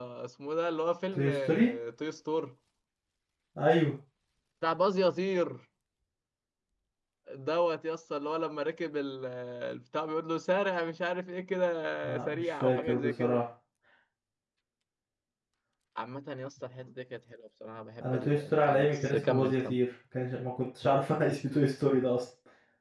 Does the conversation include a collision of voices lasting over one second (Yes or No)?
Yes